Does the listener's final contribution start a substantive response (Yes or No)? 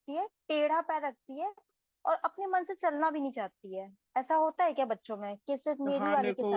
Yes